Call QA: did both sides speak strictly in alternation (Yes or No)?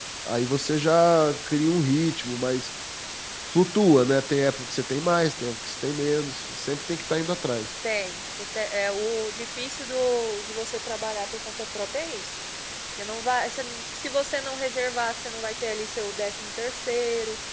Yes